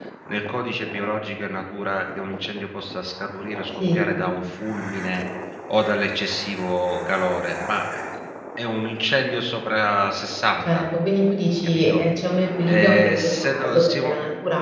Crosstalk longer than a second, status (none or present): present